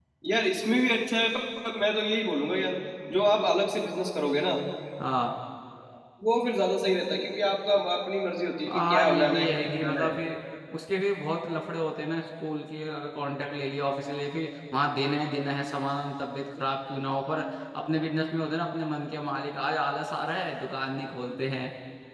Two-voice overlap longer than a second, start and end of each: 8.7-10.1

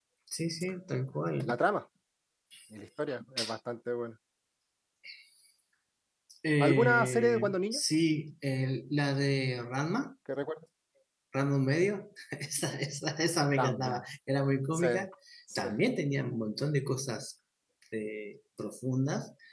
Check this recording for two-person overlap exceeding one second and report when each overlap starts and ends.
6.6-7.8

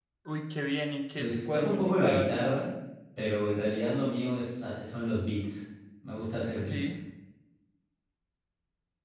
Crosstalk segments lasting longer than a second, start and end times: 1.2-2.6

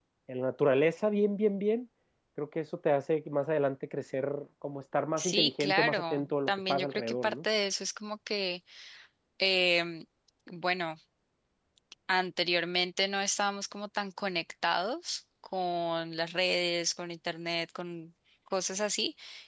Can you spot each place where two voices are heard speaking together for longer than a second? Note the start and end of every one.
5.2-7.4

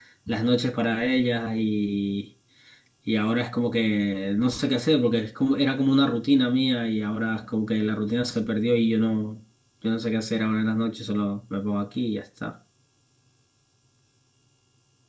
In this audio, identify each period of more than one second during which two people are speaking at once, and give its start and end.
none

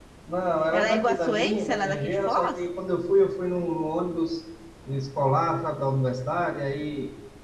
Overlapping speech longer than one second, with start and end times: 0.7-2.6

